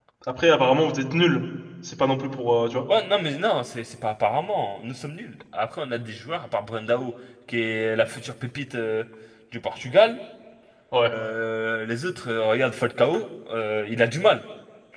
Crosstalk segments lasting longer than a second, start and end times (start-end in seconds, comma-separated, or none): none